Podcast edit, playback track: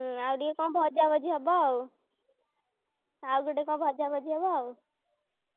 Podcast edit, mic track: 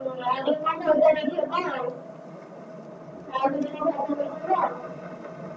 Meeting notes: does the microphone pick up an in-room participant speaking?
No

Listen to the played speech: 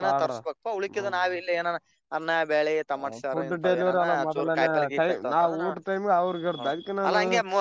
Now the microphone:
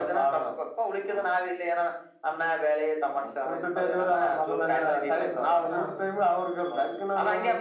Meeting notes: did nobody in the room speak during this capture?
No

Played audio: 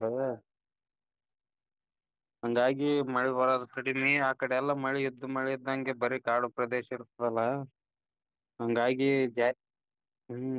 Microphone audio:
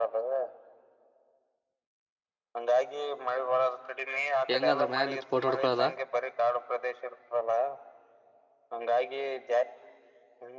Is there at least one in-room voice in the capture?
Yes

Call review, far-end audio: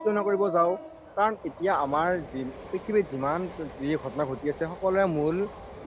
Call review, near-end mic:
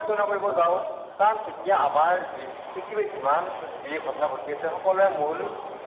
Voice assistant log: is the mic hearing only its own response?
Yes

